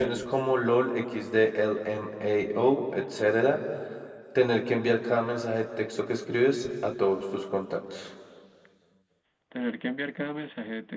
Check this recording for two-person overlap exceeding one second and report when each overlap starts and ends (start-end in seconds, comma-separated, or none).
none